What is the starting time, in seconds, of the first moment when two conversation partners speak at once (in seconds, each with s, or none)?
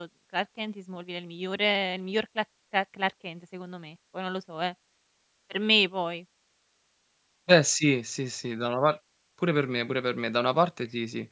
none